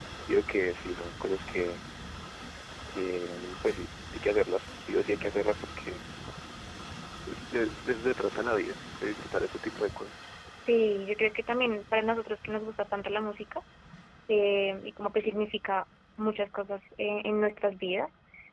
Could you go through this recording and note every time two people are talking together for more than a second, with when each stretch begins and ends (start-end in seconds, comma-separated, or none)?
none